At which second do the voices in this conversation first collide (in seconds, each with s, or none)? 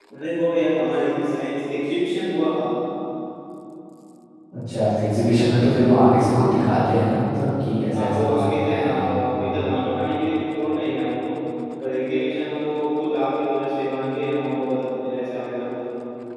7.9 s